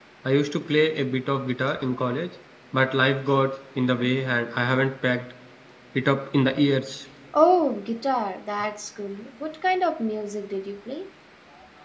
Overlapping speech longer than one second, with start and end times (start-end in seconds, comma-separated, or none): none